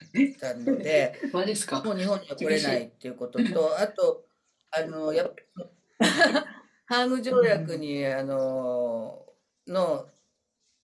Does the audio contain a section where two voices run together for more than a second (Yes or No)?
No